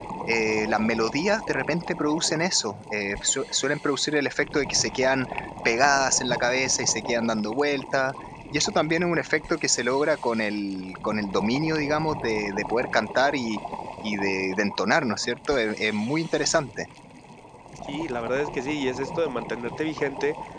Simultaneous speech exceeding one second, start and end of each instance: none

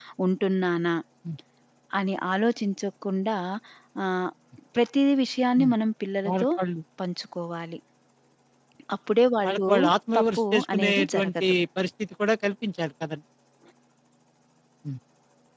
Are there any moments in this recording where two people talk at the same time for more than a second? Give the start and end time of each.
10.2-11.4

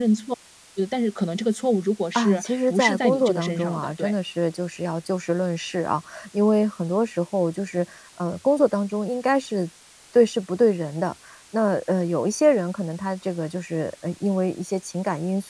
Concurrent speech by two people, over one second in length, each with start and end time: 2.1-4.1

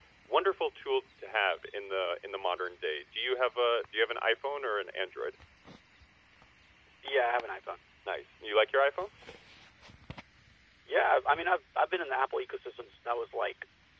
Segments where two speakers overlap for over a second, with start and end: none

